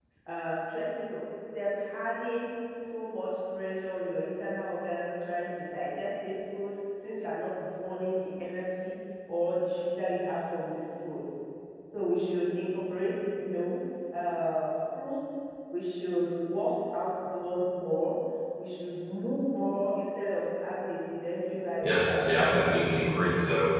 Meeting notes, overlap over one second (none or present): none